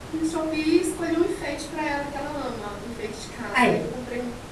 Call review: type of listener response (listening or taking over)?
listening